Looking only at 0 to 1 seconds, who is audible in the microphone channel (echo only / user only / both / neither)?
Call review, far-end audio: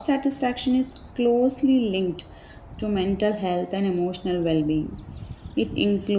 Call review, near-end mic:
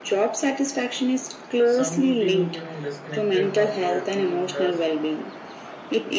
echo only